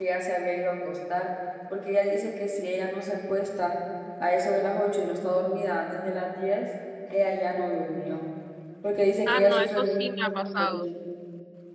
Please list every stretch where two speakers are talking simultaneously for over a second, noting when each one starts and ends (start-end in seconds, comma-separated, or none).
9.3-10.9